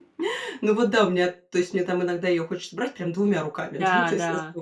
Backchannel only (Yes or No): Yes